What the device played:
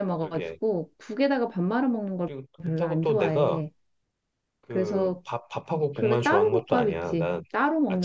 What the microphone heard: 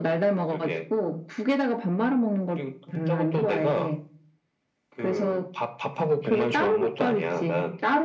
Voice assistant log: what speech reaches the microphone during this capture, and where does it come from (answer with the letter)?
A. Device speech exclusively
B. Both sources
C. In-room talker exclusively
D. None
A